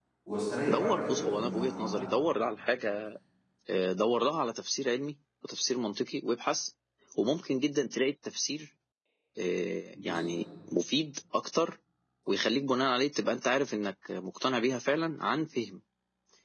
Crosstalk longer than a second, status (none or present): present